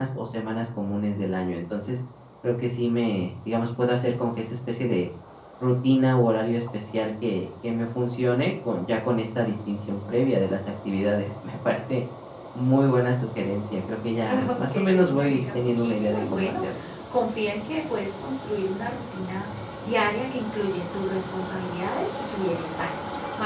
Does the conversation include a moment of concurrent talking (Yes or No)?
Yes